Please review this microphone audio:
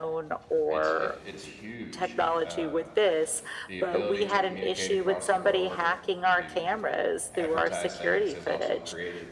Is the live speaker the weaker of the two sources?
Yes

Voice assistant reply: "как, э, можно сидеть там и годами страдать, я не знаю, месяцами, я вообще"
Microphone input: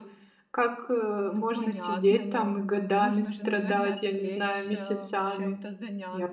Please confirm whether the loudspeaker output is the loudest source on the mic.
Yes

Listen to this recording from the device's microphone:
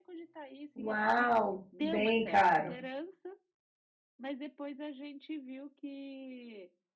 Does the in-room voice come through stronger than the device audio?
Yes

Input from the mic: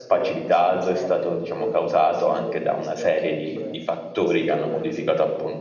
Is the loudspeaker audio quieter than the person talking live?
Yes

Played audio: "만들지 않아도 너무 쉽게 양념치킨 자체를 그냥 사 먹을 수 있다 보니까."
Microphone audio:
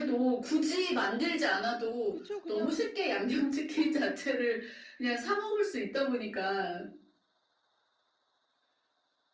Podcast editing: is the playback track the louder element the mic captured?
Yes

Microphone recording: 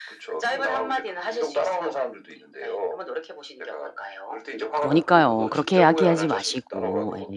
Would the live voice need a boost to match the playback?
No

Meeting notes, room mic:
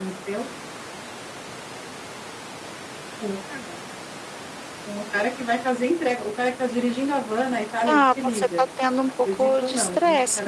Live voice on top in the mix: Yes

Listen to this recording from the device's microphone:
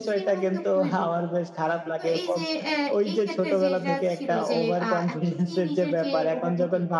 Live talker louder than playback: No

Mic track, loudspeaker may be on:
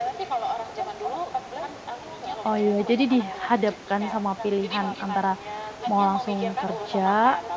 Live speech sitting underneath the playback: No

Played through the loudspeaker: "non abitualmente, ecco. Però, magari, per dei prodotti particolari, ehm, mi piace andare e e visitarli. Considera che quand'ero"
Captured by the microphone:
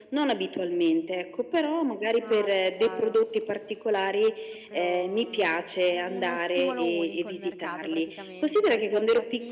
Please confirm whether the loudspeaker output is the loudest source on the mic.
Yes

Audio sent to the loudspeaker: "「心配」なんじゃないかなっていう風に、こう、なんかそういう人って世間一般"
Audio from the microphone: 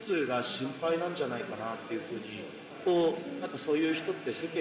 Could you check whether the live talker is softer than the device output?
Yes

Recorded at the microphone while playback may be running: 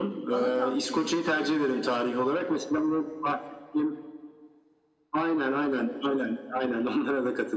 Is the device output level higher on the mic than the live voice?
Yes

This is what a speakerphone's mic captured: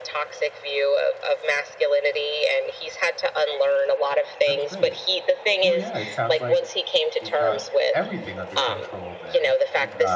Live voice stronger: No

